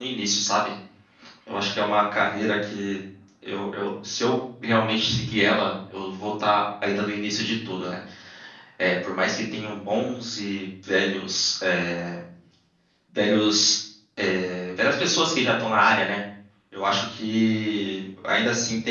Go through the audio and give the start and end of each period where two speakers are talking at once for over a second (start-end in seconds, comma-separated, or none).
none